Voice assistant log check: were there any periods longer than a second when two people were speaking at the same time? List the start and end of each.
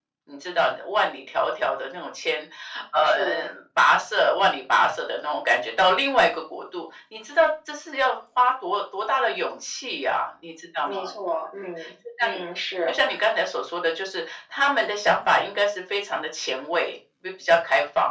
none

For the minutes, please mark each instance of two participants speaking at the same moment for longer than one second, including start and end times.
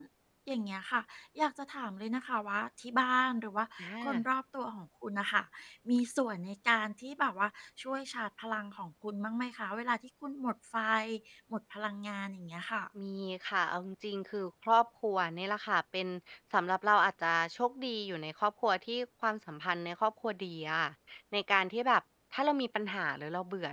none

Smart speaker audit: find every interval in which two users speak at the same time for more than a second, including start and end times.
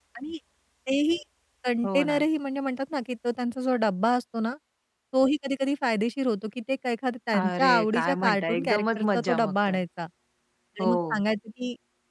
7.4-9.8

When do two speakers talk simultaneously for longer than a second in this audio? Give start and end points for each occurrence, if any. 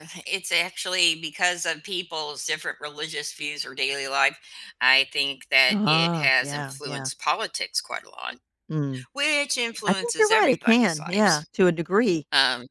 5.7-7.1, 9.9-11.4

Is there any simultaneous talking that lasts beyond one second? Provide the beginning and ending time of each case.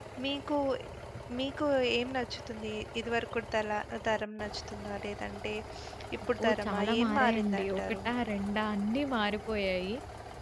6.4-8.0

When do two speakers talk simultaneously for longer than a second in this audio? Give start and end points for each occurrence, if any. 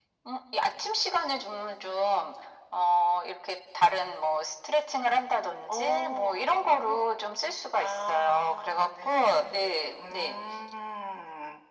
5.7-7.1, 7.8-10.4

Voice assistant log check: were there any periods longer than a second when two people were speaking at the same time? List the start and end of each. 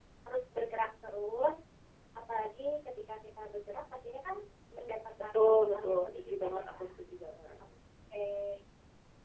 5.3-6.9

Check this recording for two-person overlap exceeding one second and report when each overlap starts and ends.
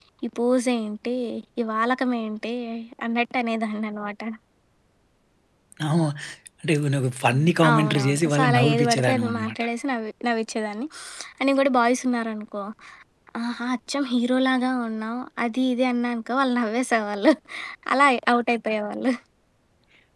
7.3-9.6

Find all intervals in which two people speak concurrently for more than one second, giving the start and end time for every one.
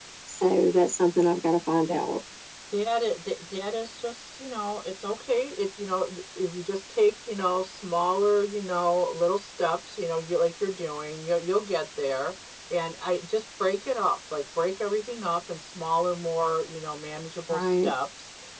none

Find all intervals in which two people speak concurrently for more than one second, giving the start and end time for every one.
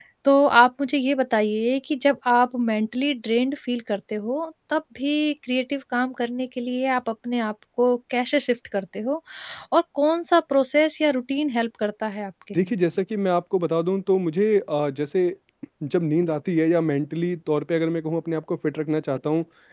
none

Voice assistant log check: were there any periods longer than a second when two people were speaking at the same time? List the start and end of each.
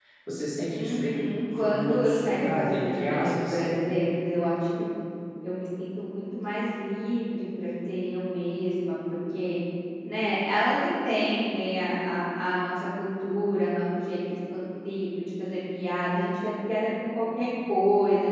1.6-3.6

